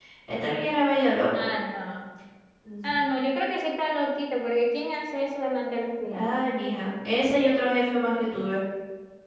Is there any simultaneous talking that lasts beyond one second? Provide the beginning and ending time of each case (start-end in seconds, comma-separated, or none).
none